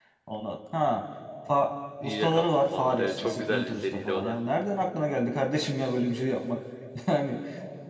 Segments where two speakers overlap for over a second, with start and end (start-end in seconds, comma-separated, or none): 2.0-4.4